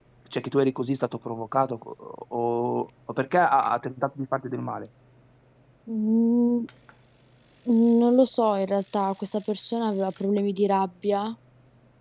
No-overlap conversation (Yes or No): Yes